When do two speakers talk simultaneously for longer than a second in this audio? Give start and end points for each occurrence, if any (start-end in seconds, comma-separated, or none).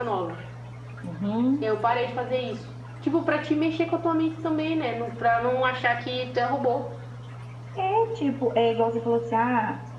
none